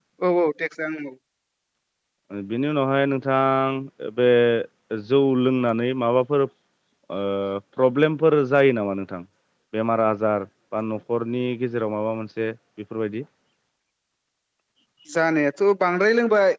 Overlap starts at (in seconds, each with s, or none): none